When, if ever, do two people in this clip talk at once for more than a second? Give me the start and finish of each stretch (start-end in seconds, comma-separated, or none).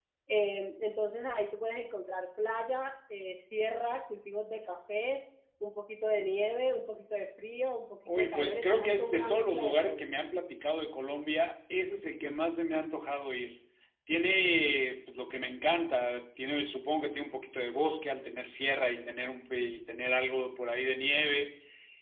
8.2-10.1